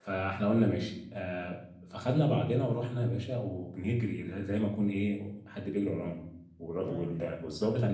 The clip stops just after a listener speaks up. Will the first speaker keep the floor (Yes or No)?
Yes